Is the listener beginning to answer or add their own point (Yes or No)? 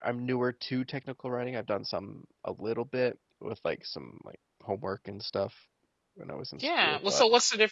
Yes